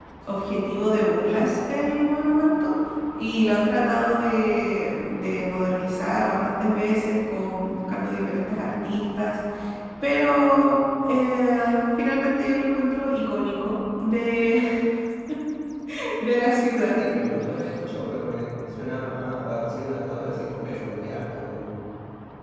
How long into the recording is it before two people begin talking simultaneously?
none

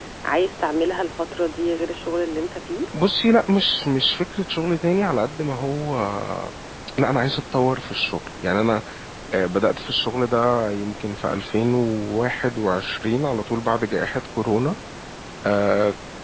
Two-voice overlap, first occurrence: none

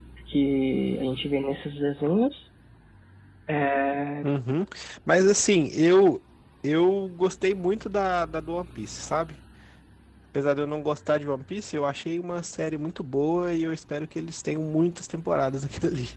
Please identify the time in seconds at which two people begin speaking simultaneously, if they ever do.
none

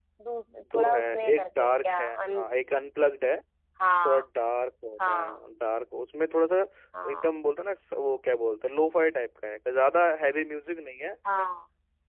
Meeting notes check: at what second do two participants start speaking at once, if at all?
0.7 s

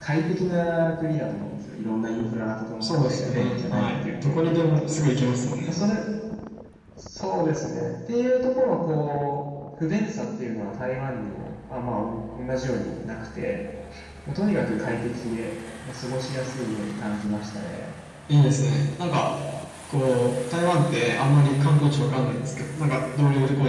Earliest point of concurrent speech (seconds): 2.8 s

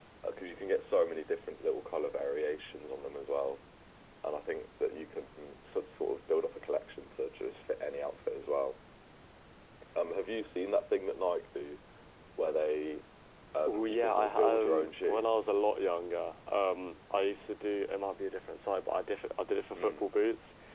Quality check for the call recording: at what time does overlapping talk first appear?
13.7 s

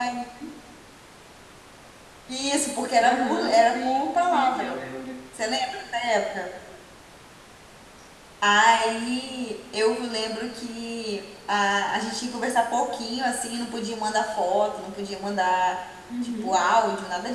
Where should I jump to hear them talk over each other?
3.0 s

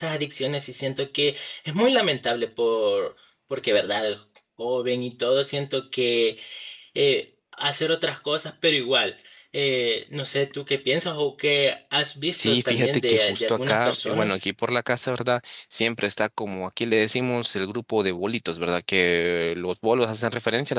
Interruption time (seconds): 12.3 s

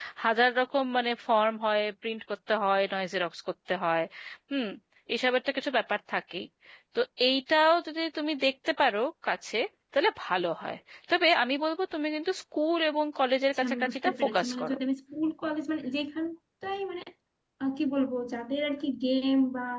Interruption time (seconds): 13.5 s

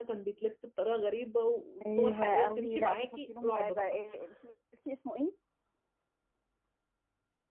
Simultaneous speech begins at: 1.8 s

